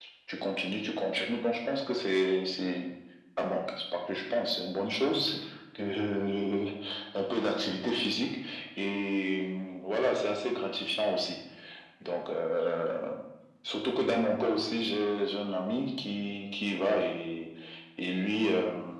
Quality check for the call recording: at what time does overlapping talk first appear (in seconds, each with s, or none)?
none